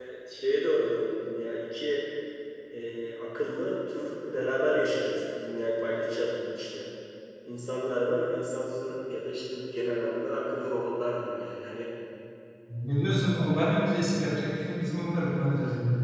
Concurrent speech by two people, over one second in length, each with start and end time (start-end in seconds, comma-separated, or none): none